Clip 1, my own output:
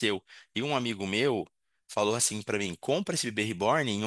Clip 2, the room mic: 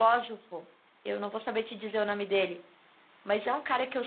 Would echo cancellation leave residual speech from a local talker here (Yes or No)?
Yes